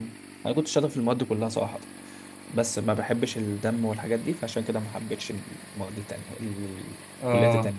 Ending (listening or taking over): taking over